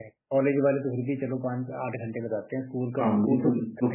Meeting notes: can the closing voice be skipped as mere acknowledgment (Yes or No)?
No